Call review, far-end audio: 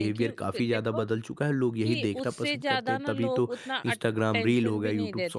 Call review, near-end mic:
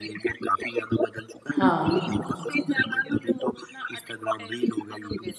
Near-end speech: present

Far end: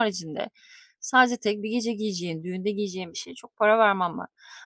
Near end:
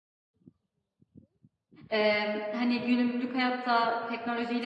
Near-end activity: present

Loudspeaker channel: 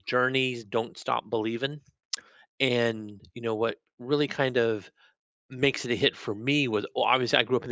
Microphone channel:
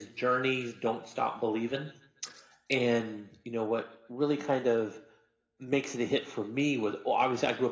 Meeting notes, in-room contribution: none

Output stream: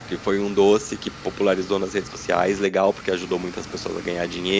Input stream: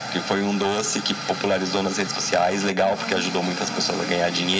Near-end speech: present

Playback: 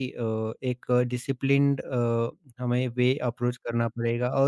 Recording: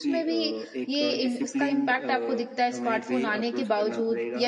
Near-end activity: present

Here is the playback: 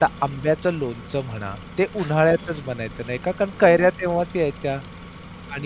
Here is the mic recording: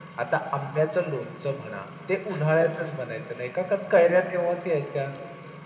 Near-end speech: none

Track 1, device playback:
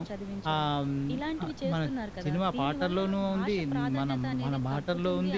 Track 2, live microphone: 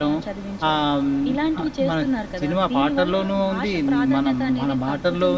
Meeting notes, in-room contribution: none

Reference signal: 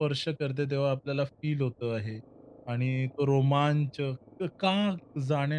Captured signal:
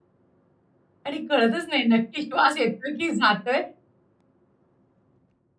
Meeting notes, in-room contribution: present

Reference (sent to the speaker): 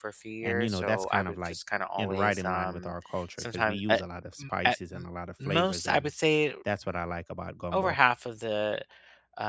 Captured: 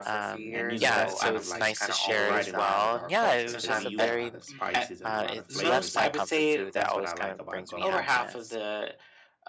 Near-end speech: present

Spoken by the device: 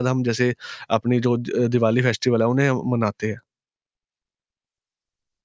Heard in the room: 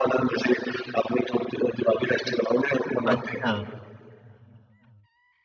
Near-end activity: present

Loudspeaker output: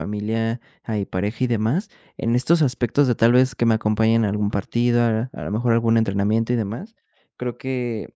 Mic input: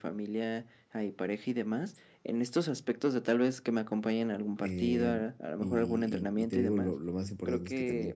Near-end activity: present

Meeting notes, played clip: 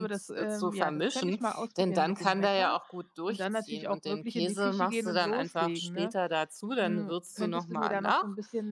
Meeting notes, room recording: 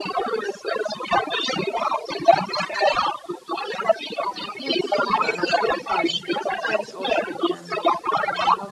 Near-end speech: present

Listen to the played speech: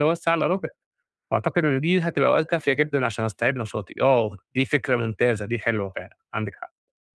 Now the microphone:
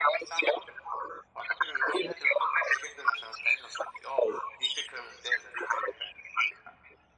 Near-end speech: none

